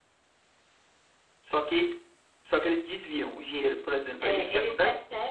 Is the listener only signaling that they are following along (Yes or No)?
No